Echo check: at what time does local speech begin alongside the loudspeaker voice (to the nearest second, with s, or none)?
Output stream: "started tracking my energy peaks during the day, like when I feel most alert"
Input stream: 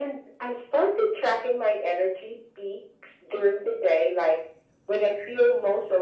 none